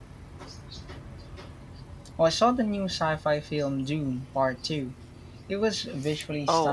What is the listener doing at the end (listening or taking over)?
taking over